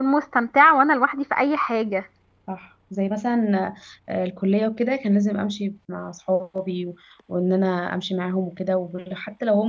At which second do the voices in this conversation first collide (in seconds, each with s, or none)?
none